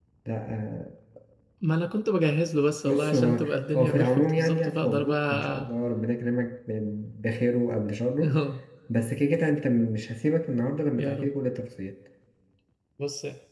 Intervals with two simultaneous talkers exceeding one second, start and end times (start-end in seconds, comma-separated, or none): 2.8-5.7